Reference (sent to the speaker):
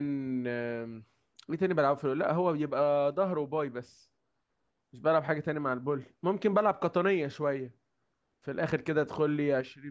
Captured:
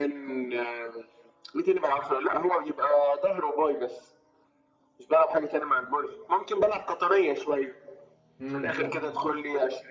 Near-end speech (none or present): present